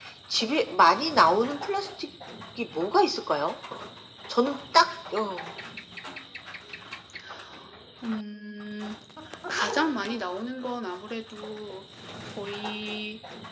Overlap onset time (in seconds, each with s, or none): none